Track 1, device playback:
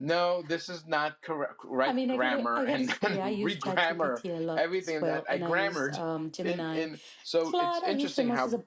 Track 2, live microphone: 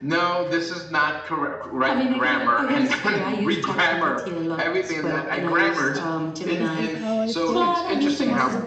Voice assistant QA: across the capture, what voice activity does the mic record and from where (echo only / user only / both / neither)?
both